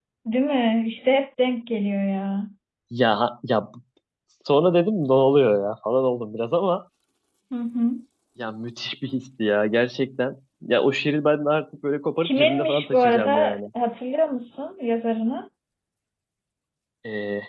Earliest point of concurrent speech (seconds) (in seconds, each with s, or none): 12.2 s